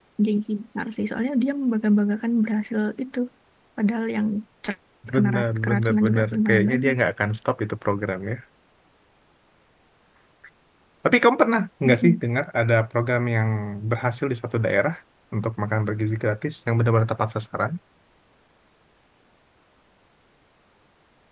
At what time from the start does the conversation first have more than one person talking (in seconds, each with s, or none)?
5.1 s